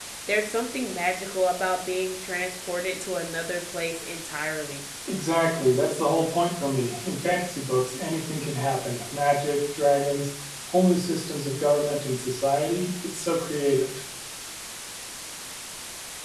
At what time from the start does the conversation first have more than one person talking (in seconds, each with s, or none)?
none